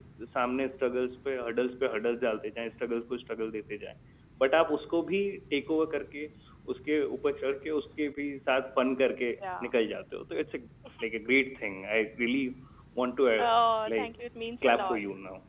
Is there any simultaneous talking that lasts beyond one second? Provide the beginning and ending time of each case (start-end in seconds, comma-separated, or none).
none